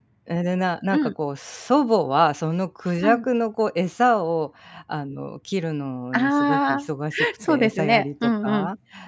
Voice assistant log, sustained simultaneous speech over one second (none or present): present